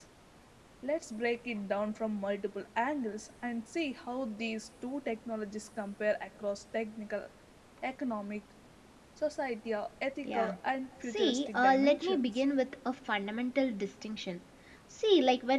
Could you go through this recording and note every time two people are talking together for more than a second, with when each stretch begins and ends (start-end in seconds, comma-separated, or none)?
11.1-12.4